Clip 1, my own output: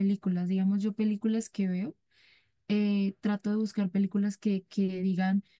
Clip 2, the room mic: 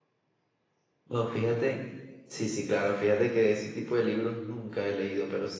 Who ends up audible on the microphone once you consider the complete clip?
user only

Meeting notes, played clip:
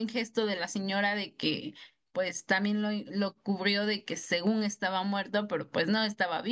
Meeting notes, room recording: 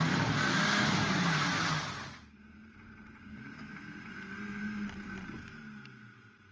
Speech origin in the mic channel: neither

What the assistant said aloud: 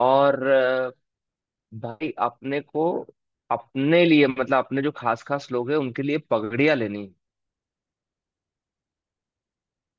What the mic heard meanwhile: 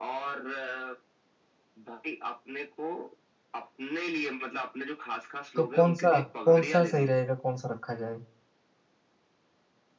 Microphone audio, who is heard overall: both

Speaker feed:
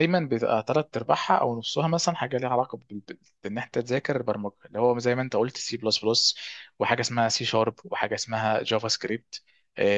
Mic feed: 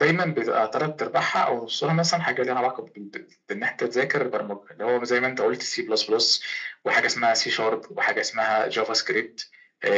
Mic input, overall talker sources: echo only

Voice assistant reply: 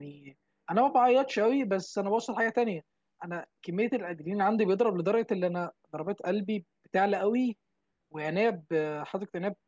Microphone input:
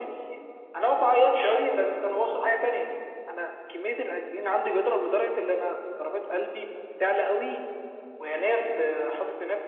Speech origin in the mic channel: both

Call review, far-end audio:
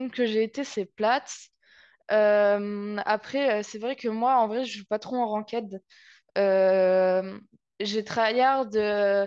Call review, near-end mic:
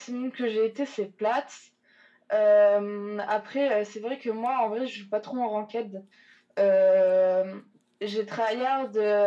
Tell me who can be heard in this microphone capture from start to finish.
echo only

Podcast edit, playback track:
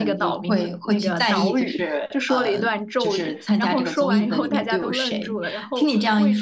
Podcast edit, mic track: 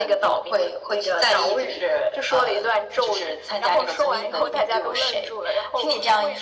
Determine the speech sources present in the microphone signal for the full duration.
echo only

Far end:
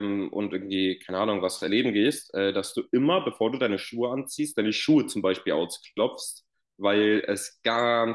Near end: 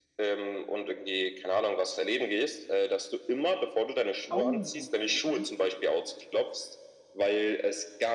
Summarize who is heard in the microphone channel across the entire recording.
both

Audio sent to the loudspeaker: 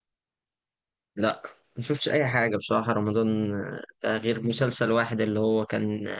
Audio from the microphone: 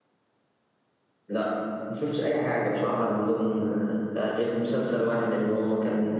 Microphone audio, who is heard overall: echo only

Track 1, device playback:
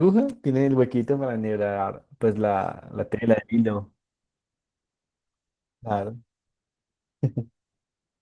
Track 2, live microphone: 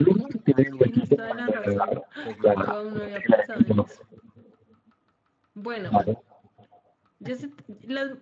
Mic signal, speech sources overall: both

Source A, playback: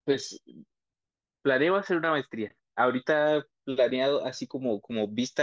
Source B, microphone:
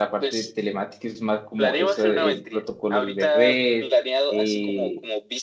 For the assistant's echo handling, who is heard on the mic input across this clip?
both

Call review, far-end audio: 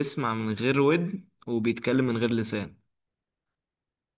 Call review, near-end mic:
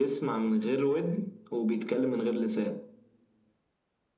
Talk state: echo only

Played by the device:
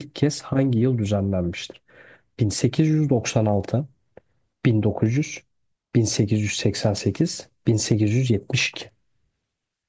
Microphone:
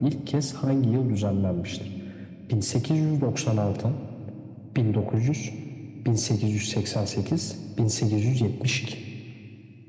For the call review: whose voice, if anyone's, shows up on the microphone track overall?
echo only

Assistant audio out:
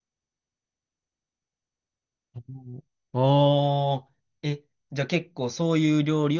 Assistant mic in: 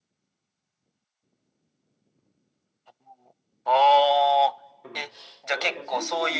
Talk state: both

